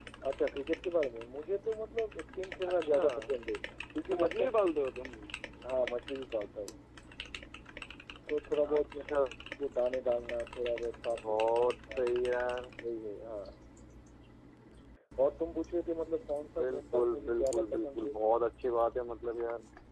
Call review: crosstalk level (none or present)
present